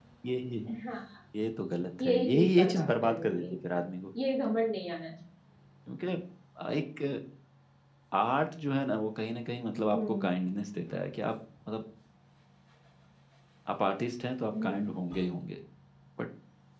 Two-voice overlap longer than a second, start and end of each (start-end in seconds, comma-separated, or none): 2.0-3.9